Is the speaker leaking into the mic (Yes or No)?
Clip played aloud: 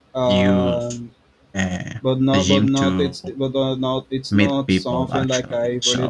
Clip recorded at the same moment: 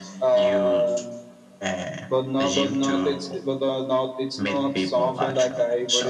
Yes